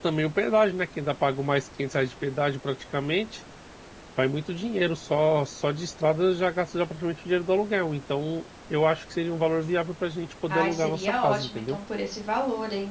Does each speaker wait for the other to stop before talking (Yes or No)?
No